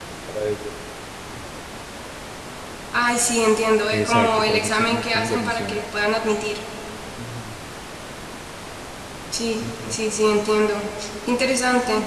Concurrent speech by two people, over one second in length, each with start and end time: 3.9-5.8

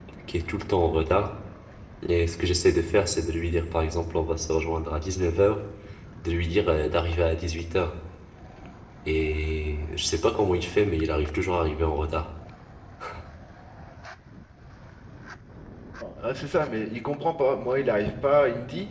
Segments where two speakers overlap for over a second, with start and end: none

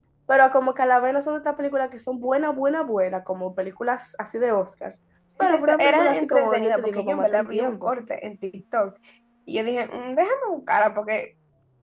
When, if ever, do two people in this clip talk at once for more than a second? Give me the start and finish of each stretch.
5.4-7.9

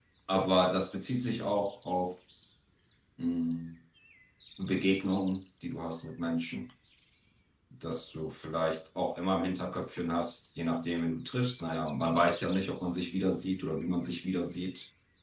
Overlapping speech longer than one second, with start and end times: none

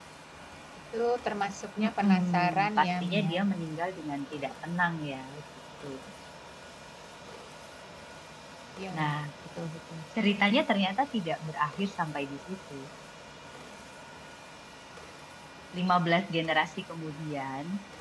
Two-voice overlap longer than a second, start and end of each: 1.8-3.3

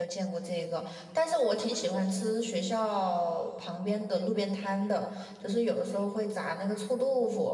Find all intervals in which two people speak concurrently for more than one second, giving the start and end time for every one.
none

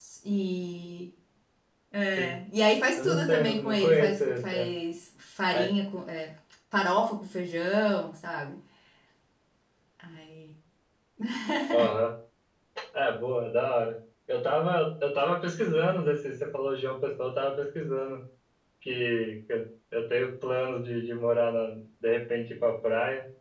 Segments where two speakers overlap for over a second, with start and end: 3.0-4.7

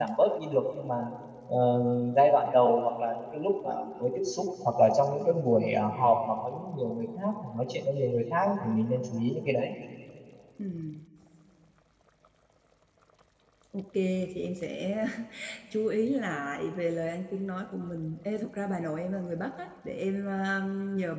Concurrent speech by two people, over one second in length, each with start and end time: none

